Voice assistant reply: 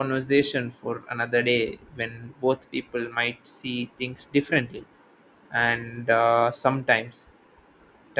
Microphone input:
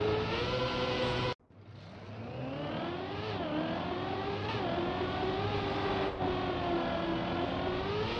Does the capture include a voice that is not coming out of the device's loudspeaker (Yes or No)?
No